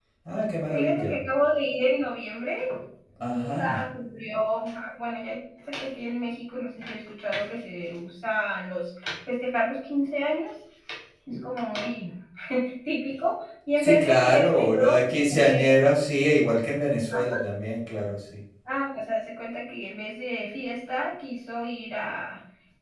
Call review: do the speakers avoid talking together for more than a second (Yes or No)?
No